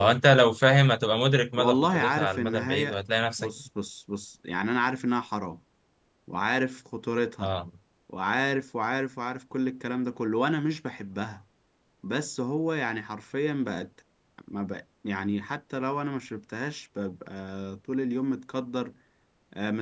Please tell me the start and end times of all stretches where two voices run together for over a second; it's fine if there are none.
1.6-3.0

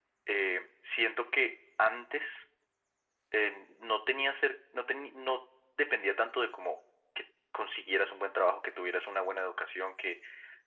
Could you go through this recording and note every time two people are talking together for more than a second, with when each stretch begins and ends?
none

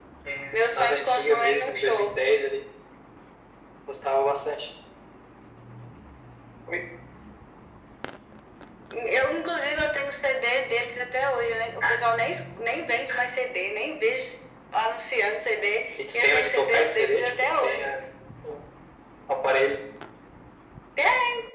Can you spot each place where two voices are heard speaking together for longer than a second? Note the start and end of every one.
0.5-2.1, 16.1-17.9

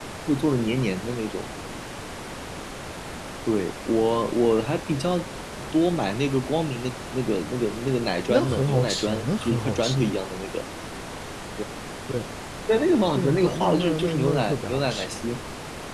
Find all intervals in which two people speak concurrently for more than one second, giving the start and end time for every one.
8.3-10.1, 13.1-15.1

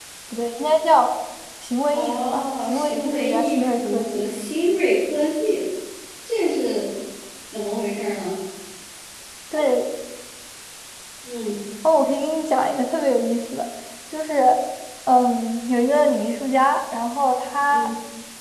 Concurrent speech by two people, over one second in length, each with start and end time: 1.9-4.2

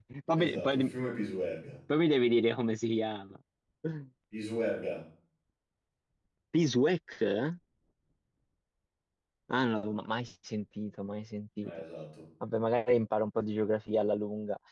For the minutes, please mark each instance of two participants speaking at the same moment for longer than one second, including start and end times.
none

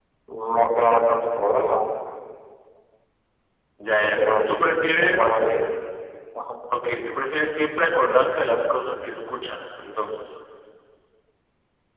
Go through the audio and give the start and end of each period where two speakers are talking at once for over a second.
4.0-5.4

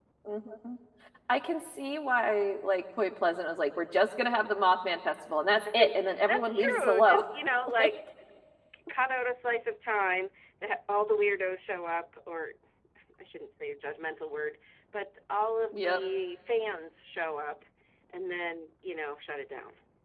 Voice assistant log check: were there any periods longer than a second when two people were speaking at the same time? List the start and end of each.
5.7-7.2

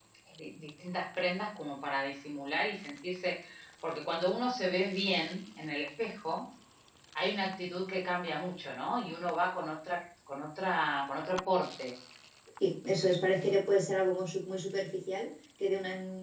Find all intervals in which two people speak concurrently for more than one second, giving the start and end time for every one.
none

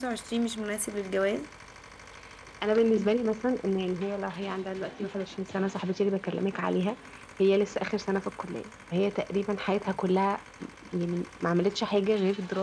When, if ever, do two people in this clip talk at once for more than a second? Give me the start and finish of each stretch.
none

